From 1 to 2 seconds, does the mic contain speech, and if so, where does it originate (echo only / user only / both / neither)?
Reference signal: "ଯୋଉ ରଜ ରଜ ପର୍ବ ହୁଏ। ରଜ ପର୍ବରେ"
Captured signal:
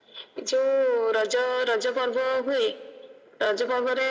echo only